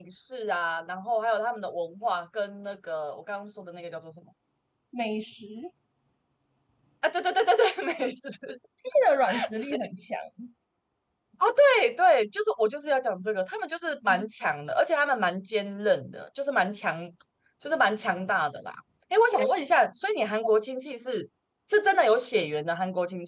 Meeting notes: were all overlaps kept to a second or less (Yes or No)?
Yes